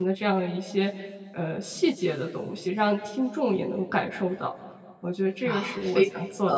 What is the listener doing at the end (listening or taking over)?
taking over